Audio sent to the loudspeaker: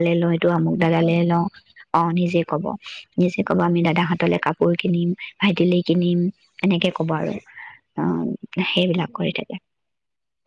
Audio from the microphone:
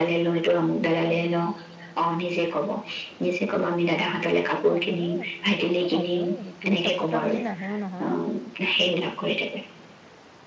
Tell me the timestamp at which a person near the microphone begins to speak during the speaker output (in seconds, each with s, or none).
4.3 s